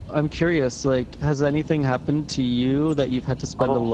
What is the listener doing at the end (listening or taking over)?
taking over